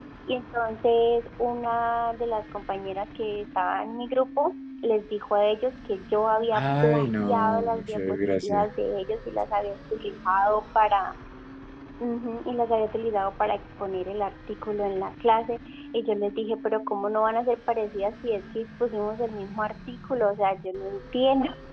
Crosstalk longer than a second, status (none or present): present